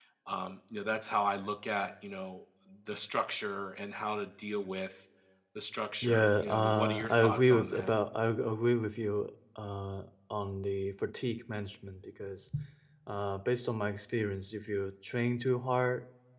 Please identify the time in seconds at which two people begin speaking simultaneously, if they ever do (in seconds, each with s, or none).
6.0 s